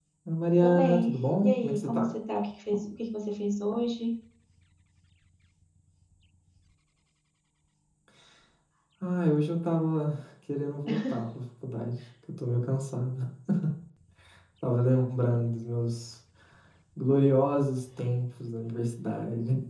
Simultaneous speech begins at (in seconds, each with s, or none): 0.6 s